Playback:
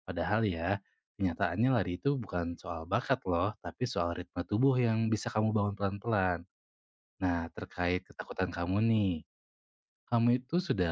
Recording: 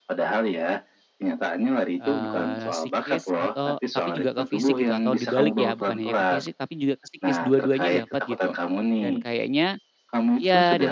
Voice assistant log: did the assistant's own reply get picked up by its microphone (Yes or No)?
Yes